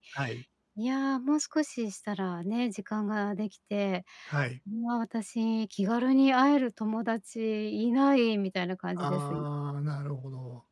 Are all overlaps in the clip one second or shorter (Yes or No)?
Yes